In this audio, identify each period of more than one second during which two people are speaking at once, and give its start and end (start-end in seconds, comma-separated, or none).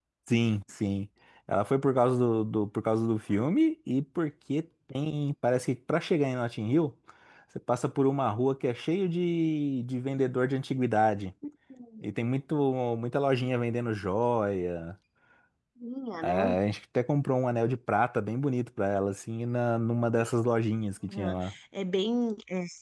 none